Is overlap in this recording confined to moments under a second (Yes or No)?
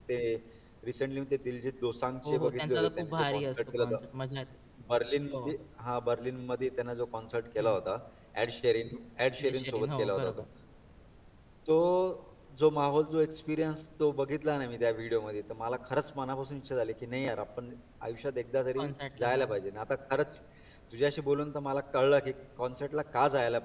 No